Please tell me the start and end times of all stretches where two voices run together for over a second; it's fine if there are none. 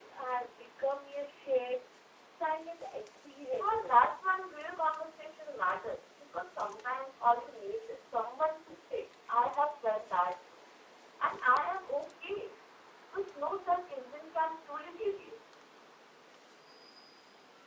none

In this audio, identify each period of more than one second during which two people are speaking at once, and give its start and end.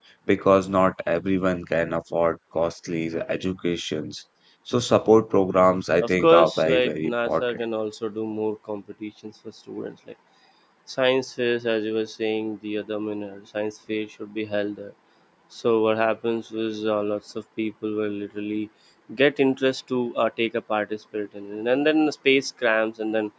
6.0-7.6

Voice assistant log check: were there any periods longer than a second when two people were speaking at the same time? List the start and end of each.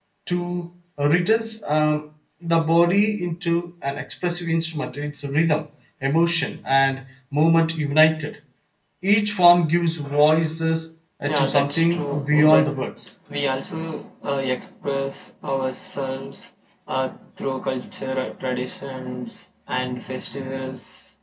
11.3-12.7

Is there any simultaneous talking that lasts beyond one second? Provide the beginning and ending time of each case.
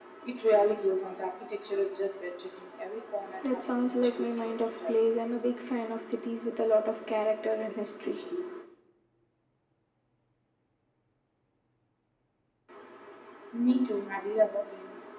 3.5-4.9

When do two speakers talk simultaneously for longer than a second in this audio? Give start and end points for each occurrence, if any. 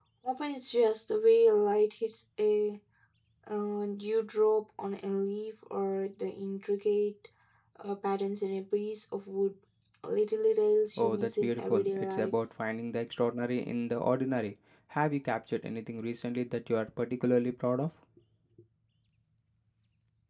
11.0-12.3

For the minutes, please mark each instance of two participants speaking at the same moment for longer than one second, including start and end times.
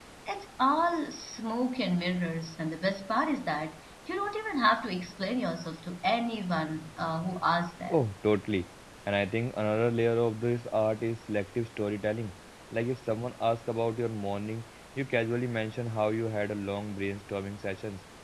none

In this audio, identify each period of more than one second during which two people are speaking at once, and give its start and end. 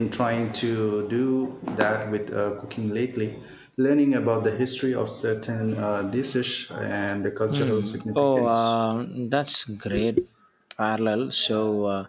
7.5-8.8

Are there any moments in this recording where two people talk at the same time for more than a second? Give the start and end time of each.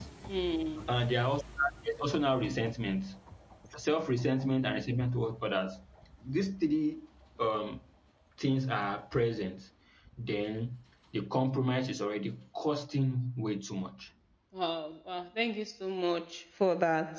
none

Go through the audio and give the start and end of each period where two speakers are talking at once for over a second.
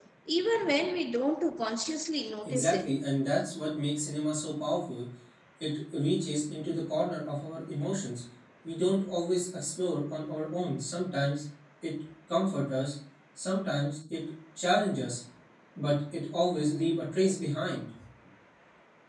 none

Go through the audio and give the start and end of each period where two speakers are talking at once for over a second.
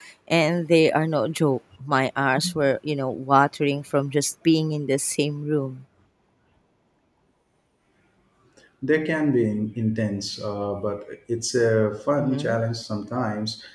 none

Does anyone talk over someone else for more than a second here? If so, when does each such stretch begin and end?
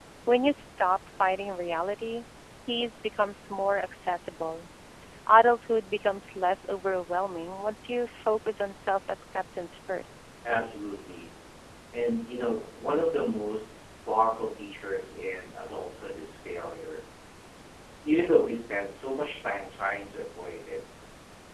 none

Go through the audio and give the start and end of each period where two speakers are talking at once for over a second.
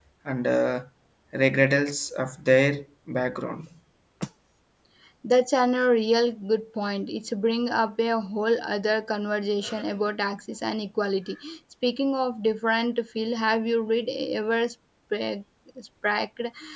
none

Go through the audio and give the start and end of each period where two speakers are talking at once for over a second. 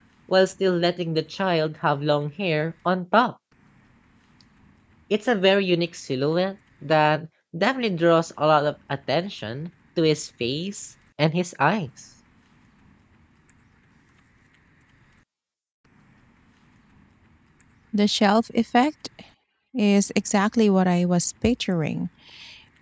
none

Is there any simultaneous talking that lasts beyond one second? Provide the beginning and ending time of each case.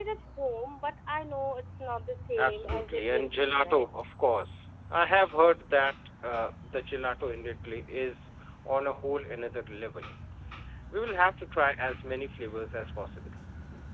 2.4-3.9

